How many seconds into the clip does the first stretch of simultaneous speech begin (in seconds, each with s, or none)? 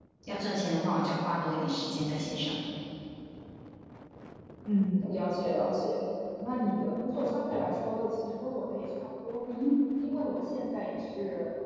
none